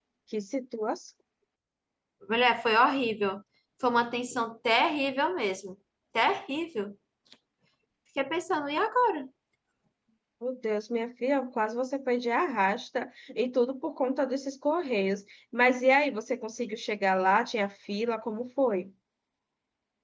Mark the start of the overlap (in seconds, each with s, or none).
none